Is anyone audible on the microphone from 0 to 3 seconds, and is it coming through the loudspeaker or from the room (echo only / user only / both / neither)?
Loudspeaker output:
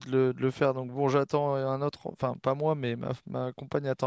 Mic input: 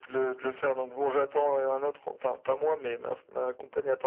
echo only